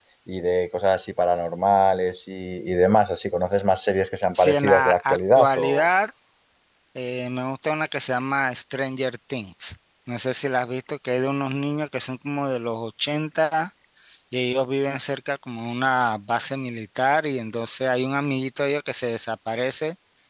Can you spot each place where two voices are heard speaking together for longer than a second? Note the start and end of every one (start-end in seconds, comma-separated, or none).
4.3-5.9